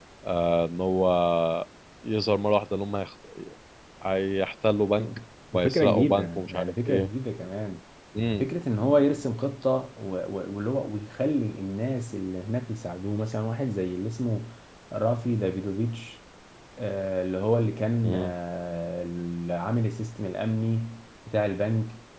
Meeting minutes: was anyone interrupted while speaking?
Yes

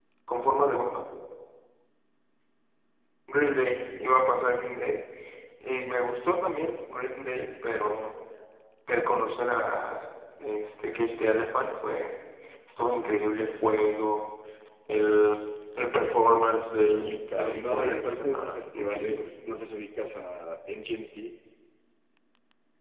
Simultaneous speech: Yes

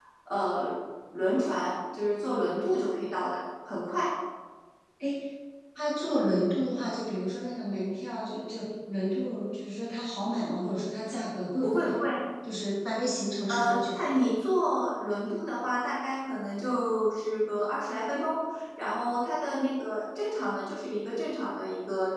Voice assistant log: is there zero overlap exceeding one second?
Yes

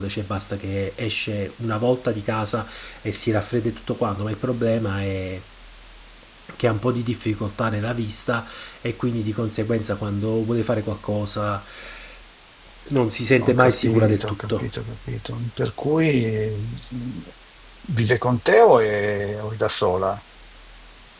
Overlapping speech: Yes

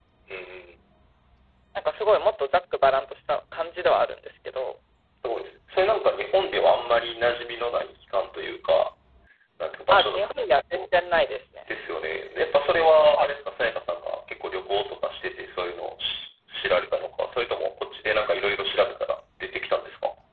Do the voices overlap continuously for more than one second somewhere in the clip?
No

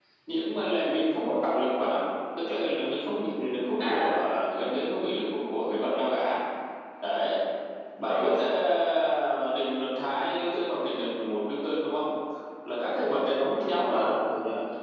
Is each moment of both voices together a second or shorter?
Yes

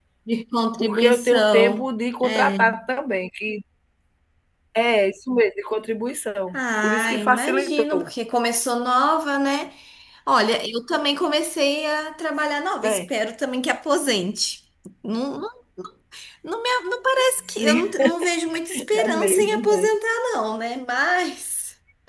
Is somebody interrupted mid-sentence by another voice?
Yes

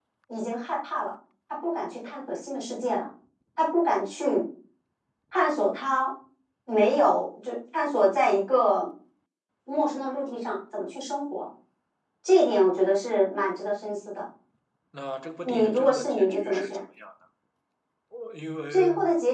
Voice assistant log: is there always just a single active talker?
No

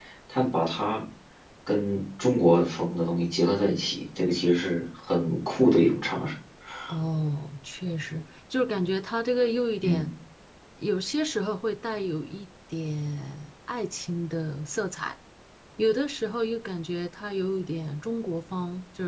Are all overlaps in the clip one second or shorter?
Yes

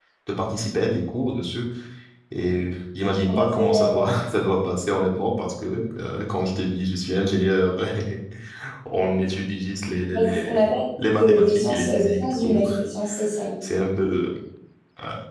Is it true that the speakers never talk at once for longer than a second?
No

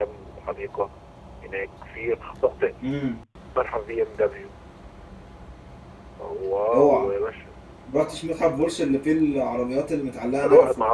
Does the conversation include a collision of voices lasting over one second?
No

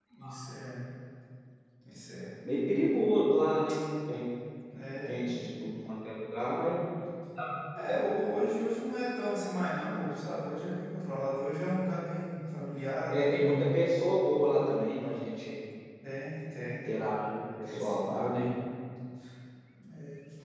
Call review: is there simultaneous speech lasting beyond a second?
No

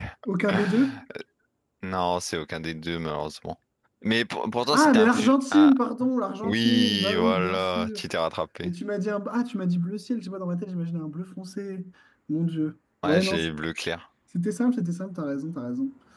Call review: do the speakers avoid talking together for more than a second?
No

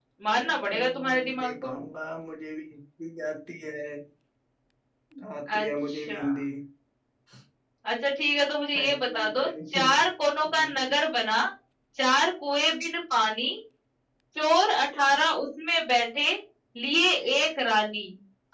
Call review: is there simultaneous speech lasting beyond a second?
Yes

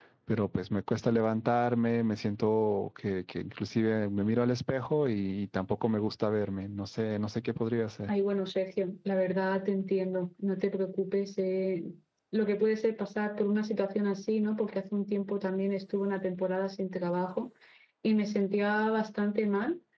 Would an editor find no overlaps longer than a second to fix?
Yes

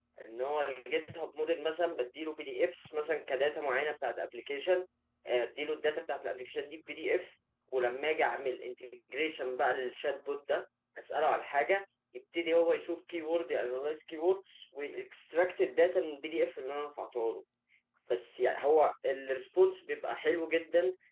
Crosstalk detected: No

